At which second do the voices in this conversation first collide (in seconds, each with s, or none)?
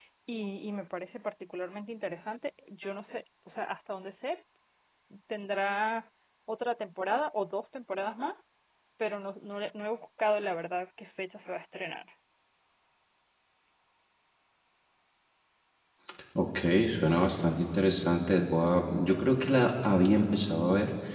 none